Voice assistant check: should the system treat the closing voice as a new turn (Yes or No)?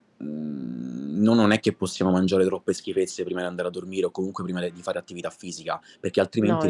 No